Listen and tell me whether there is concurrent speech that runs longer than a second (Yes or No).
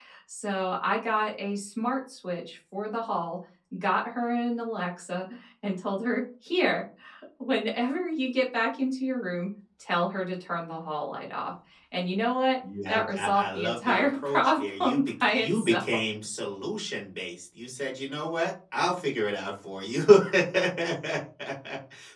Yes